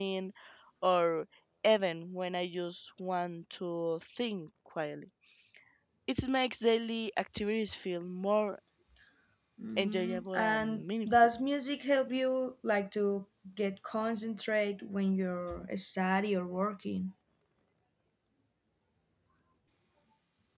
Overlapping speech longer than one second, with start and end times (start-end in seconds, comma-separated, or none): 9.8-11.3